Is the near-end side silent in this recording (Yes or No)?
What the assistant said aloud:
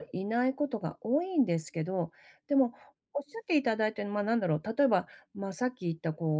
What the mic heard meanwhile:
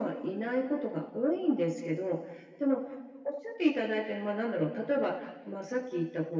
Yes